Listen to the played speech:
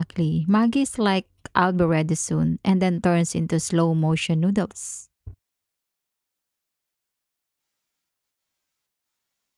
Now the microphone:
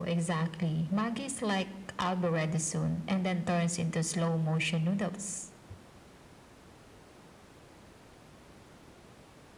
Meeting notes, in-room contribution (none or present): none